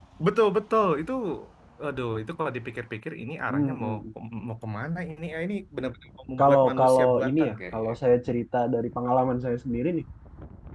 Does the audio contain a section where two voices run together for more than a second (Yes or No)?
Yes